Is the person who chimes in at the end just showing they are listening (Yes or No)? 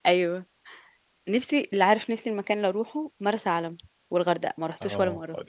No